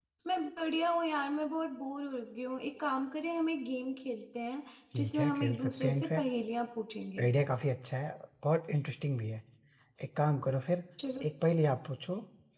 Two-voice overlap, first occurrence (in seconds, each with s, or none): 4.9 s